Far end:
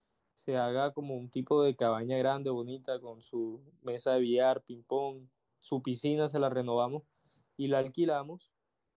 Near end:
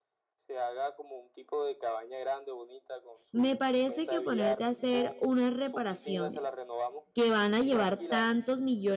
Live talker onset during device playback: 3.3 s

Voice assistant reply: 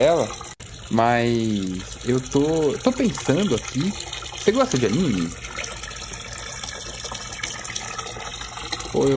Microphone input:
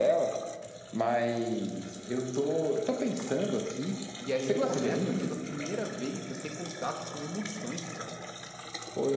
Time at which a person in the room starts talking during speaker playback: 4.2 s

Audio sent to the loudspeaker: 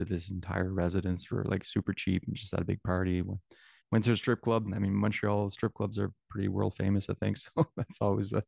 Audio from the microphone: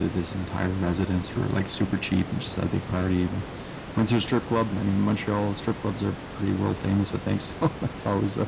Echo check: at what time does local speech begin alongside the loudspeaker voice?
none

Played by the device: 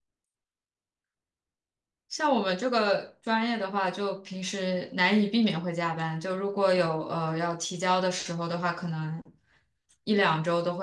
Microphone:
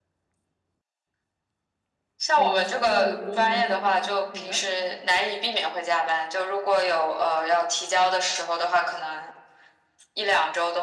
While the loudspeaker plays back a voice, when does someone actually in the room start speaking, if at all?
2.3 s

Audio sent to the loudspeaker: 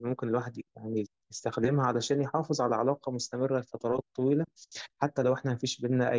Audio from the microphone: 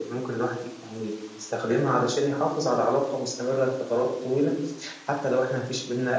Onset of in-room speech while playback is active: none

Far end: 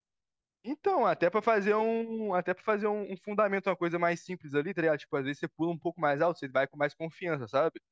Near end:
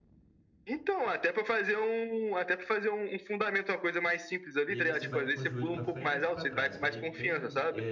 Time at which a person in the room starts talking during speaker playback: 4.7 s

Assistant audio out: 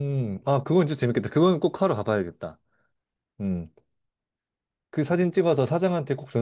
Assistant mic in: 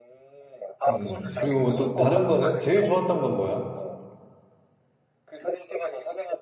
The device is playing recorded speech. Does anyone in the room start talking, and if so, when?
0.9 s

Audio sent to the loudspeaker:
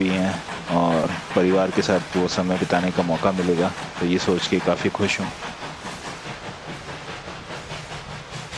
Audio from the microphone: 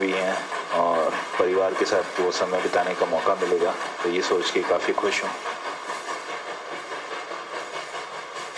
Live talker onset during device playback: none

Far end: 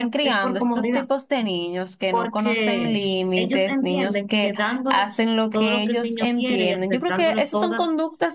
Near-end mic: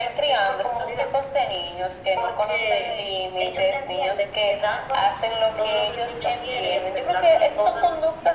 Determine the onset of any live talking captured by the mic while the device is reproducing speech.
none

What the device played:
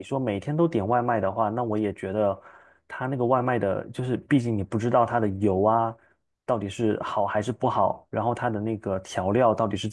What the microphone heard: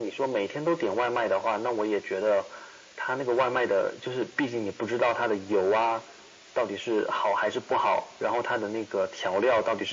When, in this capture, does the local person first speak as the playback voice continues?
none

